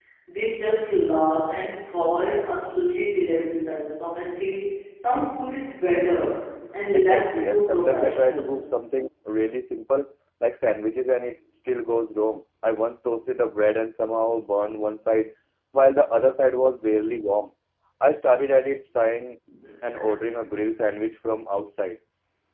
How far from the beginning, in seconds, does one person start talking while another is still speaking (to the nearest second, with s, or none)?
7 s